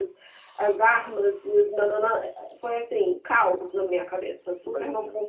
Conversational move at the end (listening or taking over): taking over